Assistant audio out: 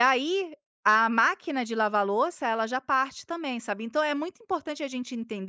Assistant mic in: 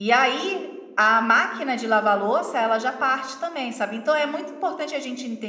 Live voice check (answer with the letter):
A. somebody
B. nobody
B